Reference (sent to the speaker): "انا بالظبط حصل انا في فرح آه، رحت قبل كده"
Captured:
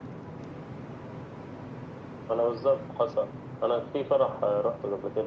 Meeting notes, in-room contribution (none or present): none